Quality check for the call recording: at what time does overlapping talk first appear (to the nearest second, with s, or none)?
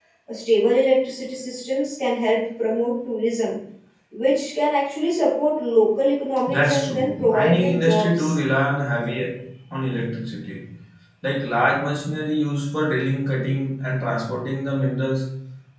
6 s